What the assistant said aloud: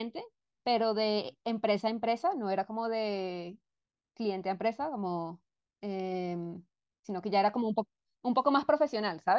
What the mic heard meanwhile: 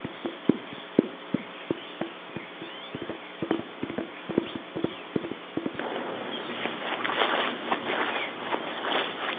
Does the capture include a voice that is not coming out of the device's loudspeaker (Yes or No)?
No